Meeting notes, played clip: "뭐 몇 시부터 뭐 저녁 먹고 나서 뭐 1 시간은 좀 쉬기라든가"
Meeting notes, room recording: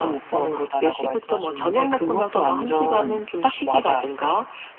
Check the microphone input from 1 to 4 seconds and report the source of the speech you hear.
both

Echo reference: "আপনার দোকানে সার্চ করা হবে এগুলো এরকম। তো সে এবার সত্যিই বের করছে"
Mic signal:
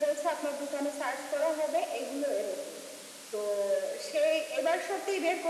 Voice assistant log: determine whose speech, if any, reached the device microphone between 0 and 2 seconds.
echo only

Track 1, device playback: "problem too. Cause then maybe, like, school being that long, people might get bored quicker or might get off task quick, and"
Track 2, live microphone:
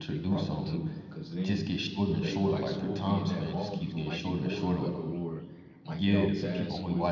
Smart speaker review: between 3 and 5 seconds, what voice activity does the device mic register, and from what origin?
both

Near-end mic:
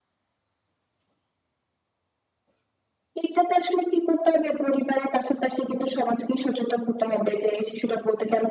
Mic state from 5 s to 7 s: echo only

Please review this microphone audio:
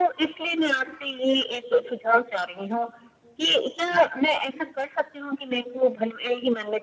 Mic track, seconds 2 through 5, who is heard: echo only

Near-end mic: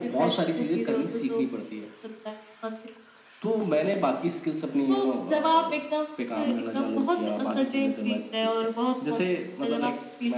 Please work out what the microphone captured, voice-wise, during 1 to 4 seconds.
echo only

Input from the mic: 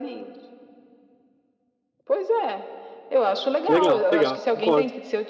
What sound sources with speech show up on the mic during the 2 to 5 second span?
both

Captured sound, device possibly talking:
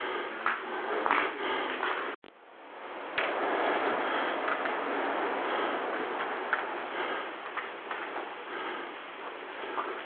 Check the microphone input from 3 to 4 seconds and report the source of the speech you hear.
neither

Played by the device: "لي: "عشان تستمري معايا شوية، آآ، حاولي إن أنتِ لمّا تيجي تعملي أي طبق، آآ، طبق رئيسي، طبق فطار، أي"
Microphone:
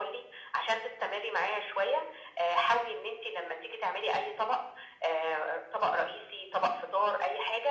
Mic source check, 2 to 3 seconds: echo only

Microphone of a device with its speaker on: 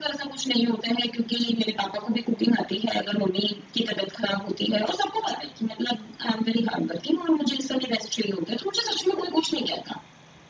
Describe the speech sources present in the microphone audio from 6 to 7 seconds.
echo only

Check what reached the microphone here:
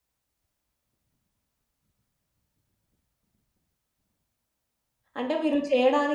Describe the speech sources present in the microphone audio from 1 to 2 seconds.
neither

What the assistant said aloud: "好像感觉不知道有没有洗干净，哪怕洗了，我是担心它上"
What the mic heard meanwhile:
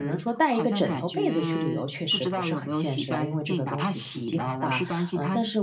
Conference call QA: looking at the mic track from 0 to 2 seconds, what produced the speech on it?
both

